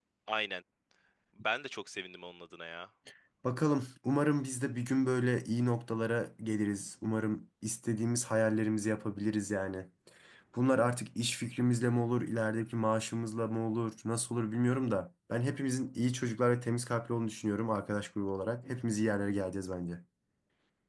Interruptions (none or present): none